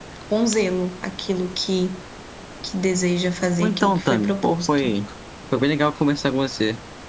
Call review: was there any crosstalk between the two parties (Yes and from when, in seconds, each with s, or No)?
Yes, from 3.6 s